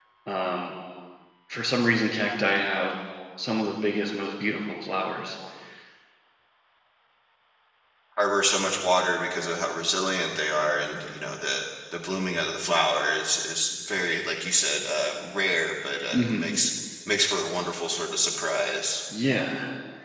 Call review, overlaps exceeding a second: none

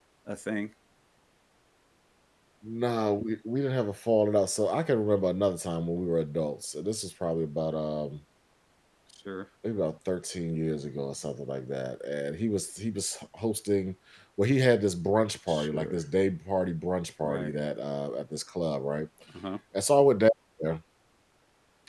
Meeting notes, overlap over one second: none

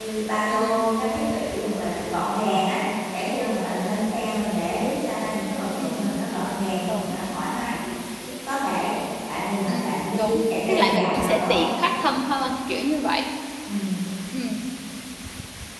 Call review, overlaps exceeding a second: present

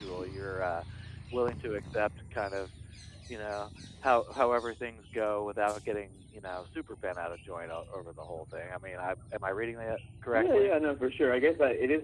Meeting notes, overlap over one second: none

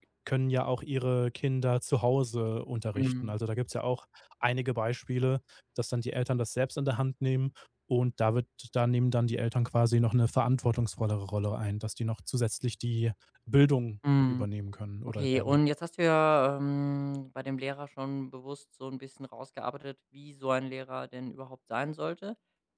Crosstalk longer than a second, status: none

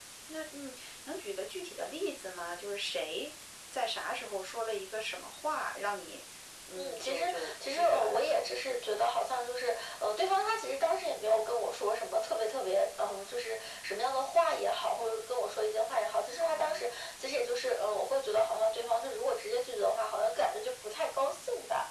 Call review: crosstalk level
present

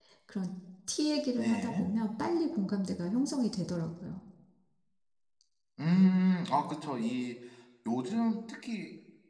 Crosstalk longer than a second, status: none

